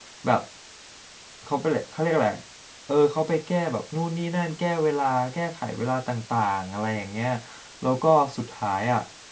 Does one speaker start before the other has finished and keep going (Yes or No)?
No